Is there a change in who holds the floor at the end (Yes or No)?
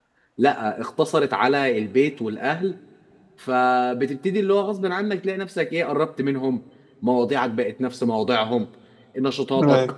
No